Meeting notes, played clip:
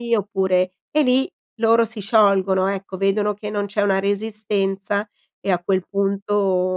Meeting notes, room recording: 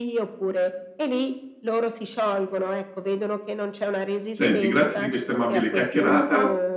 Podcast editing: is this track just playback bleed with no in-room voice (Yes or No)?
No